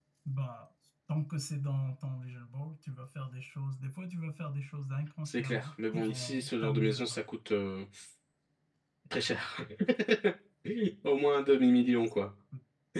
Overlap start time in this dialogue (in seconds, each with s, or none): 5.2 s